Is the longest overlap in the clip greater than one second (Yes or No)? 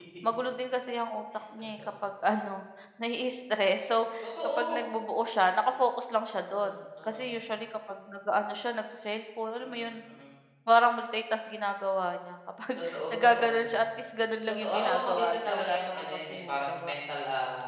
Yes